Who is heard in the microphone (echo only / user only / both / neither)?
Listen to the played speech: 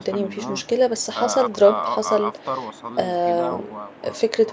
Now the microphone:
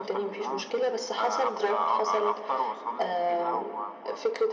echo only